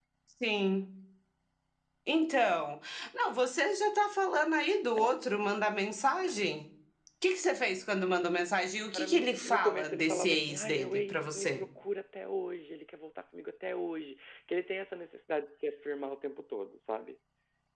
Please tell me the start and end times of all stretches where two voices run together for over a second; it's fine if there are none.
8.9-11.6

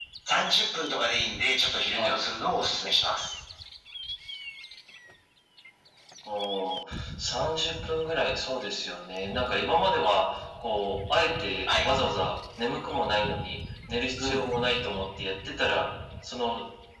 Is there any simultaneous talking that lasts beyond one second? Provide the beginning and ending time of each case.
none

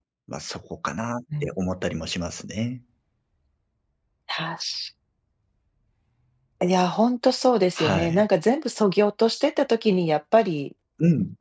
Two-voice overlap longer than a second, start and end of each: none

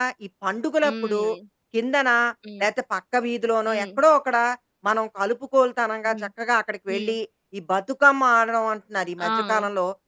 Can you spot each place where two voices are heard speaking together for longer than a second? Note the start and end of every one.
none

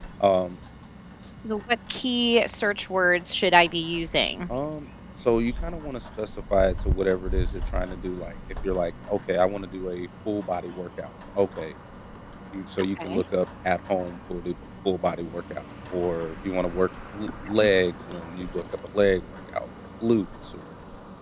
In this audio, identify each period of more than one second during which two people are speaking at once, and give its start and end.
none

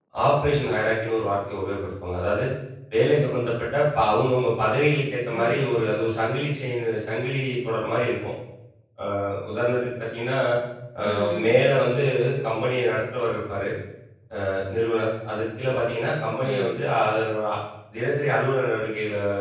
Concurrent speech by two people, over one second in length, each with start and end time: none

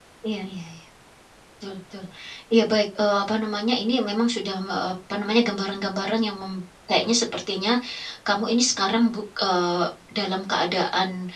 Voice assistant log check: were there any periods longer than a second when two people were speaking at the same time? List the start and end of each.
none

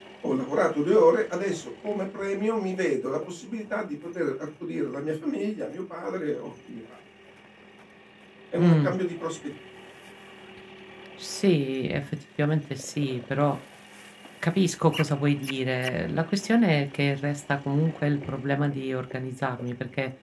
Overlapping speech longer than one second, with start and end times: none

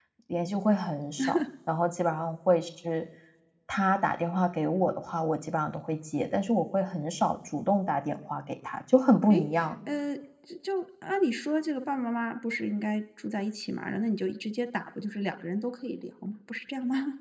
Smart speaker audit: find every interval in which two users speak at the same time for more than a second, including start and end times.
none

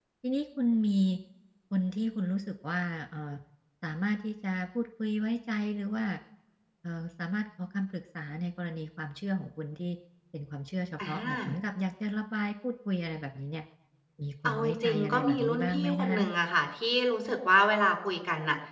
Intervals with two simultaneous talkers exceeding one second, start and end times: 14.4-16.2

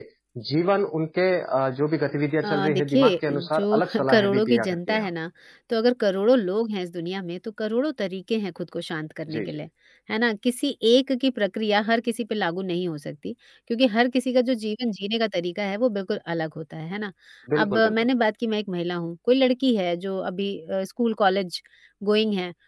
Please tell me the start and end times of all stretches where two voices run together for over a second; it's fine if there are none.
2.4-5.1

